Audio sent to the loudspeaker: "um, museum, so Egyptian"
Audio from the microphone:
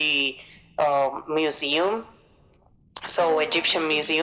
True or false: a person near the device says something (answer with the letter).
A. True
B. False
A